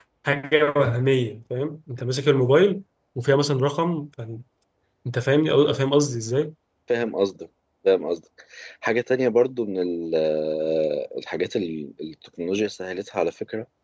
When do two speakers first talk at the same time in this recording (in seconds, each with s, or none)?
none